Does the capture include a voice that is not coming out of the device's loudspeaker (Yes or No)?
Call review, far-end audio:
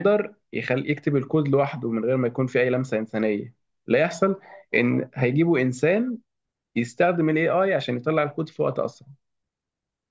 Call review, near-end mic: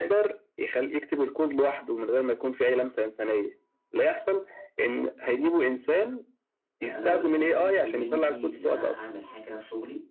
Yes